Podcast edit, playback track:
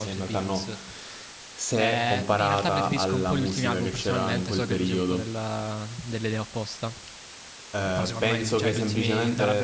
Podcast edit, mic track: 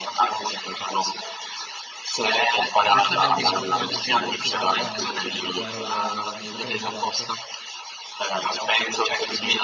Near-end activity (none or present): present